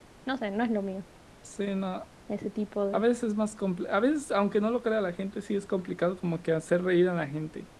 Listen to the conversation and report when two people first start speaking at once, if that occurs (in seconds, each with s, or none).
none